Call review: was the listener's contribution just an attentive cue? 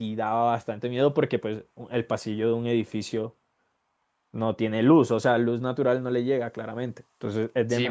No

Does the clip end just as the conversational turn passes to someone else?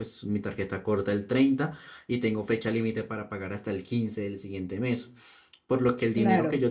No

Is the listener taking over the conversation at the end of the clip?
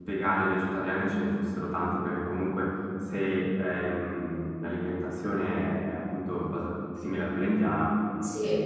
Yes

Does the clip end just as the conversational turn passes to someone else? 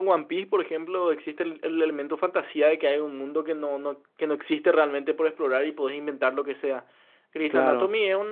No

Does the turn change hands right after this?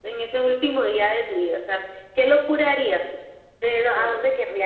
No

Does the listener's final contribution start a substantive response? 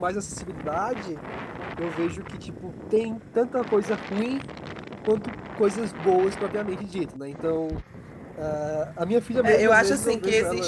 Yes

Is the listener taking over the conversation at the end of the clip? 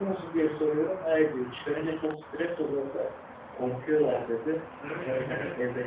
Yes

